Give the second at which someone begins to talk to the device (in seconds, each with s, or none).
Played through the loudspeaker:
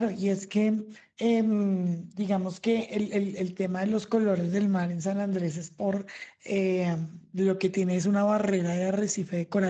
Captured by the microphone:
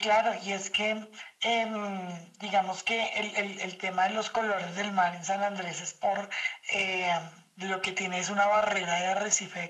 none